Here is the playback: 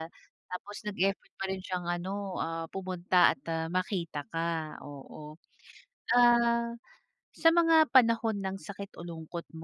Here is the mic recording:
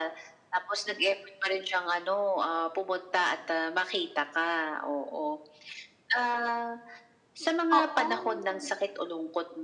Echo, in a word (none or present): present